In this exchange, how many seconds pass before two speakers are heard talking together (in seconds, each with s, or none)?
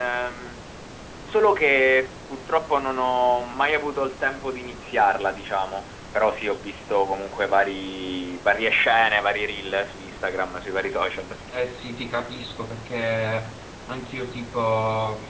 none